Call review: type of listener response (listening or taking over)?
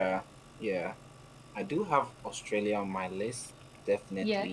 listening